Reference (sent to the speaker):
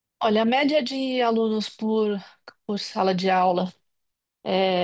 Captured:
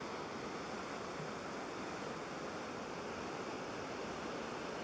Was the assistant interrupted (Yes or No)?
No